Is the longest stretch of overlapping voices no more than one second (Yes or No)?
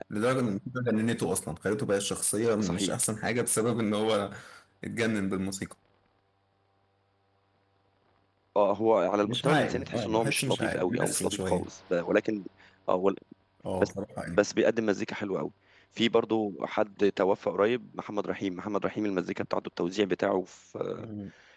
No